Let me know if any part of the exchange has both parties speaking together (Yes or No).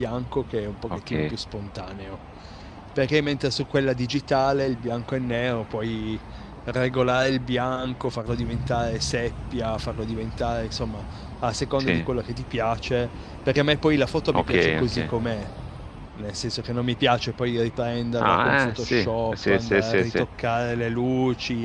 Yes